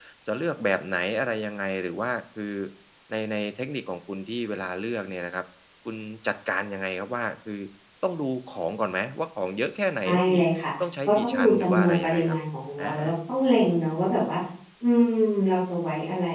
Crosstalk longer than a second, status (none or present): present